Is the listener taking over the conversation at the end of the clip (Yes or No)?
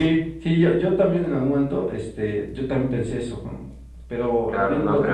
Yes